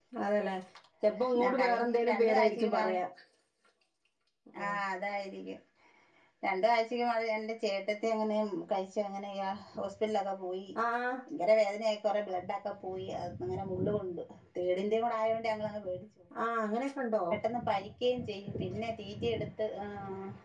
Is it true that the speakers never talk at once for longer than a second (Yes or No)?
No